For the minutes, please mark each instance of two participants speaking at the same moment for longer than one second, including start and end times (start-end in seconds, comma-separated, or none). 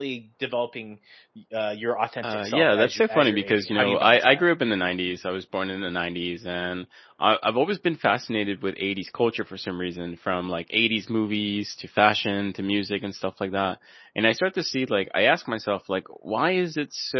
2.2-4.5